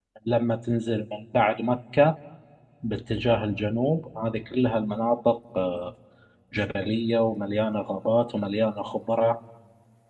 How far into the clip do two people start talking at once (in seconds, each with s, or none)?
none